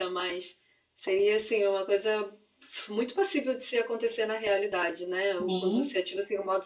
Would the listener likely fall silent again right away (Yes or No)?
Yes